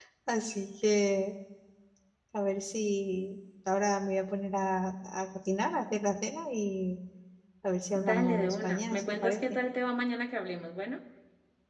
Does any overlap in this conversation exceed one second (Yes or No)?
Yes